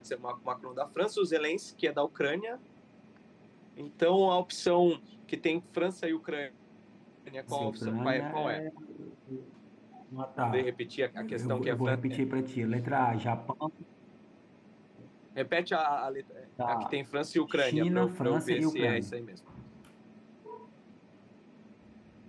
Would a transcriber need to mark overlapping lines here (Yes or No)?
Yes